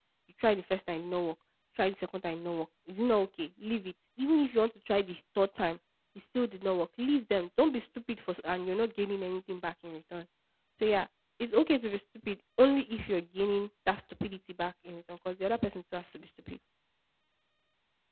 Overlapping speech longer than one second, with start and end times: none

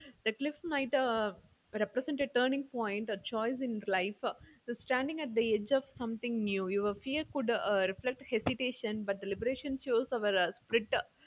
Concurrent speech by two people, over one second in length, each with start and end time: none

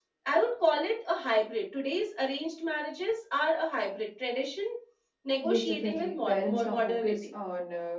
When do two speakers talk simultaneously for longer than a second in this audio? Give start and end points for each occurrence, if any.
5.5-7.3

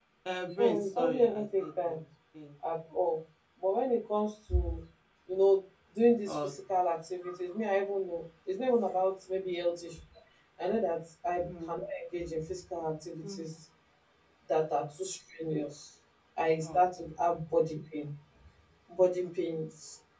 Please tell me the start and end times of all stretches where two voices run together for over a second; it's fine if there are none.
0.6-2.0

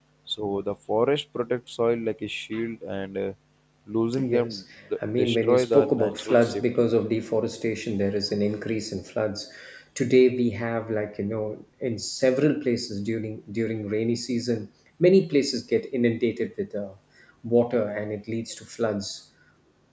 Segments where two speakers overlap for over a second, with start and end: 5.2-6.6

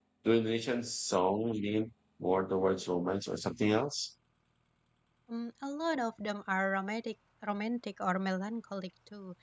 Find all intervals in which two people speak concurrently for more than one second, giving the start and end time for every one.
none

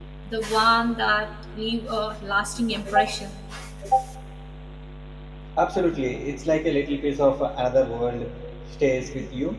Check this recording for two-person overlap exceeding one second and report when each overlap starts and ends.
none

